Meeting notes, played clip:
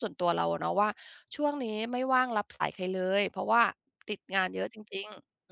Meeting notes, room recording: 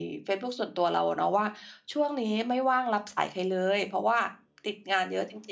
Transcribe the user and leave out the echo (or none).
none